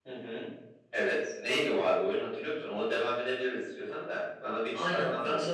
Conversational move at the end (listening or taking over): taking over